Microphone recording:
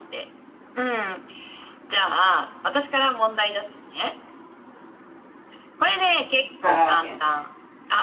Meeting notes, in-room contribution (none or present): present